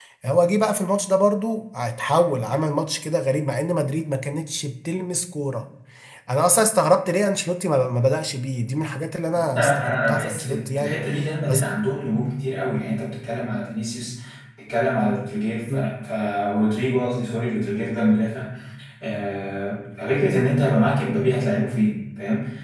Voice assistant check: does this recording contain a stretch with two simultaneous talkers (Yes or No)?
Yes